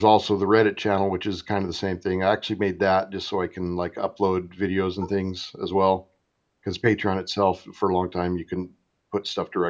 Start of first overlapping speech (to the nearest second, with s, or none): none